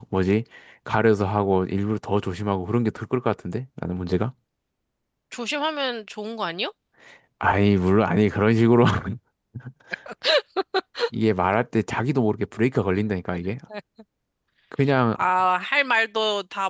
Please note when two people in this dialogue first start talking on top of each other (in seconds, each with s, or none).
none